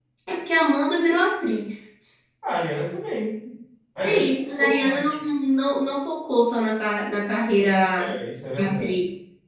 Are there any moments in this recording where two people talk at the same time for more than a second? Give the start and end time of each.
4.0-5.2

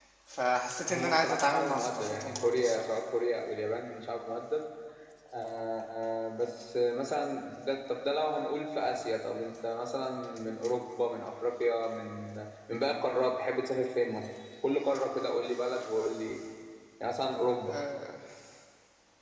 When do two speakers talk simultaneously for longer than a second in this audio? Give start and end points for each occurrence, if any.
0.9-2.9

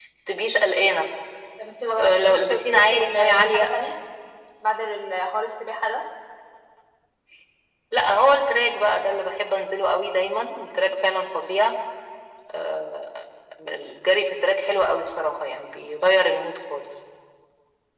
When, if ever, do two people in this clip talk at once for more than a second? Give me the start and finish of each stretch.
2.0-3.7

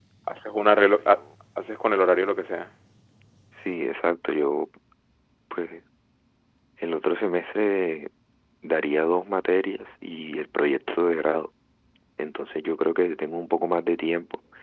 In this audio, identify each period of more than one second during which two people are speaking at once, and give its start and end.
none

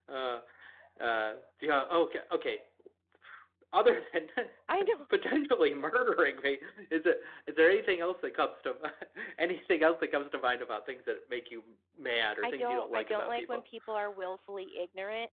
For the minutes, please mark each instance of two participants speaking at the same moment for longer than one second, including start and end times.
12.4-13.6

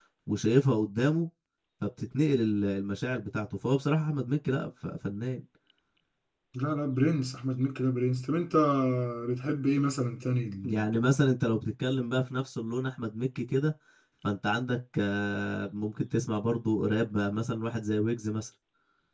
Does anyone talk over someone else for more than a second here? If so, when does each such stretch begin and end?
none

